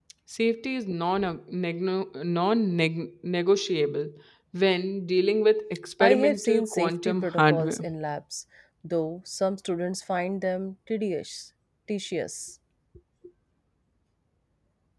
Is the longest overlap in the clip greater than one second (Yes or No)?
Yes